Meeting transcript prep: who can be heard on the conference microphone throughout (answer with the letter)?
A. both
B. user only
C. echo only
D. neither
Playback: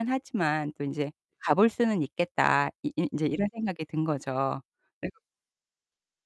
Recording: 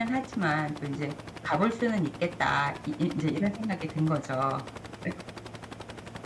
C